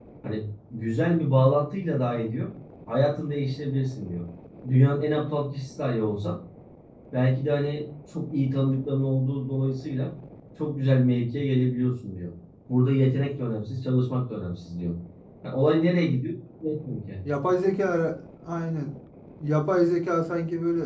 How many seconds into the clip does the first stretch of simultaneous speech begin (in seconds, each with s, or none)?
none